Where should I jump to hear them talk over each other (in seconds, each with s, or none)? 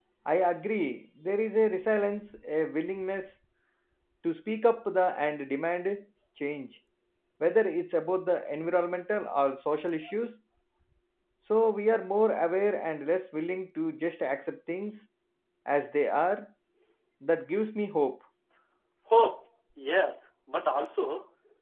none